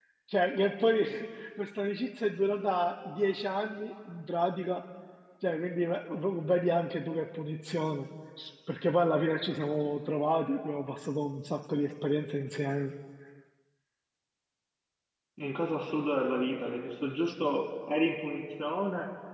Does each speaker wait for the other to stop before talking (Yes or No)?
Yes